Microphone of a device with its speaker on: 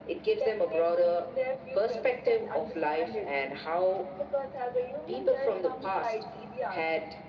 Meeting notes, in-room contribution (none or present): none